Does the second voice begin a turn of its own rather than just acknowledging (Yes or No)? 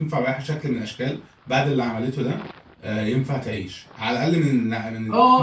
Yes